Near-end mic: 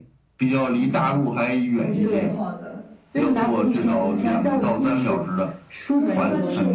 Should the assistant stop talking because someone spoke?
Yes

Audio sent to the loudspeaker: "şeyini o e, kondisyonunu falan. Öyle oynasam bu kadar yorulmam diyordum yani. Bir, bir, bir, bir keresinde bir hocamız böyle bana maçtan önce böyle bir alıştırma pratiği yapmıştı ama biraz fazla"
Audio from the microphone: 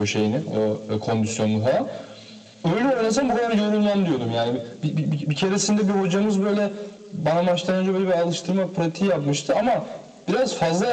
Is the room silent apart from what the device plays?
Yes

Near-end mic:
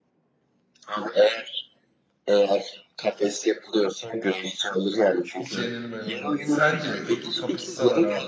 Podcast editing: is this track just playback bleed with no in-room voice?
No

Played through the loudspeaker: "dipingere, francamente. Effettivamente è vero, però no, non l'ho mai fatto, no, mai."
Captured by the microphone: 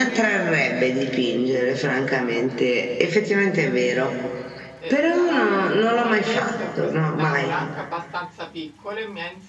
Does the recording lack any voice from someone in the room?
No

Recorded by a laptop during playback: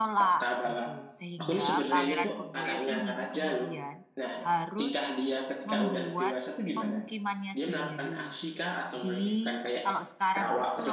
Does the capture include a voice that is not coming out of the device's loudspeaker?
Yes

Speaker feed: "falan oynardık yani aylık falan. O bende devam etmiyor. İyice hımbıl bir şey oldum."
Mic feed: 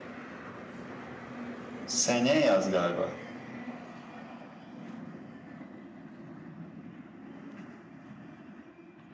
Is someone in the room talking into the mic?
Yes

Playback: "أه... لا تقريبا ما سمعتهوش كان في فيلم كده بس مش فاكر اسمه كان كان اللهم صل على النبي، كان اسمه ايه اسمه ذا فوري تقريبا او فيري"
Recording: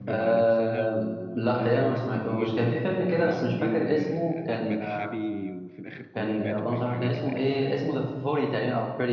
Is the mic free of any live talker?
No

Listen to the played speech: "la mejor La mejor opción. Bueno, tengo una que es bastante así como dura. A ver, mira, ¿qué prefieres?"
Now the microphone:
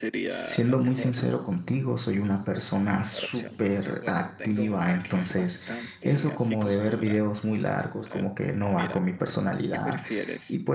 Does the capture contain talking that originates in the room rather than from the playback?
Yes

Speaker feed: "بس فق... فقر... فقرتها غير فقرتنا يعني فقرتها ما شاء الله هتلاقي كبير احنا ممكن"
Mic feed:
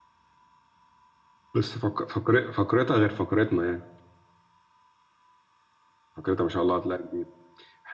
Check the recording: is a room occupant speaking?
No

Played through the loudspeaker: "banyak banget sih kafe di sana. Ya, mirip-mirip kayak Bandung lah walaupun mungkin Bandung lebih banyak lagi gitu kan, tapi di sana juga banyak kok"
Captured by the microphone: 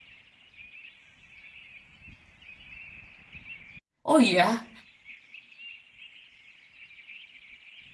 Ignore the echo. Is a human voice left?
Yes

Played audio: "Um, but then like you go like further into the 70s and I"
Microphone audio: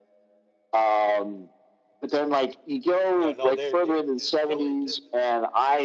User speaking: Yes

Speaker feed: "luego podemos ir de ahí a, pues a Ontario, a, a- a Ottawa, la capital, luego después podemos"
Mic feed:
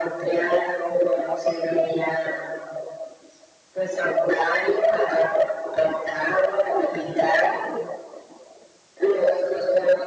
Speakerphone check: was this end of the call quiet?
Yes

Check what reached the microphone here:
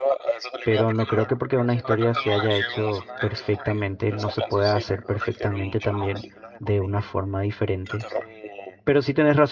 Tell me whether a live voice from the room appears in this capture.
Yes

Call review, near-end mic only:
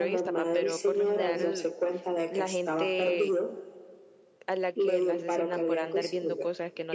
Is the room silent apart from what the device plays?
No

